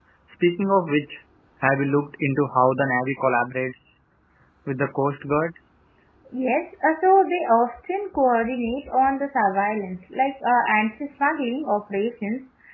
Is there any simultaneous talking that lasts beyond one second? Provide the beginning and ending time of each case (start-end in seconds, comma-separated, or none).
none